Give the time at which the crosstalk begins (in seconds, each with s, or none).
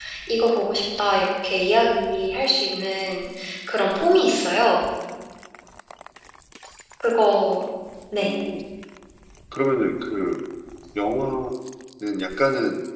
none